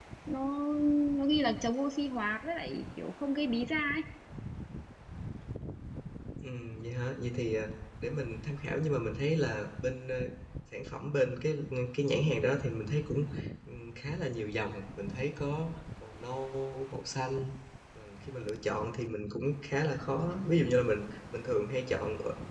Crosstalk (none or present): none